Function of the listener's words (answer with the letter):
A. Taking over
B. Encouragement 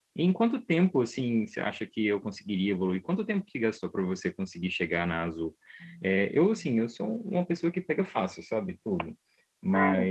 B